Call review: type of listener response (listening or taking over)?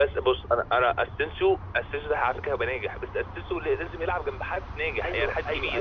taking over